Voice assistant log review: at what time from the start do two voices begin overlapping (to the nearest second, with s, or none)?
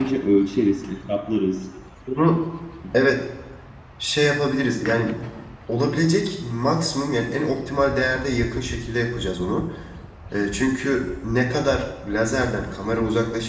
none